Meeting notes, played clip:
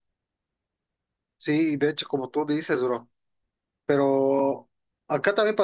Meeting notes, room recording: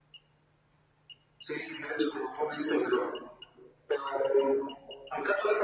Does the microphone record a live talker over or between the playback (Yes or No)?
No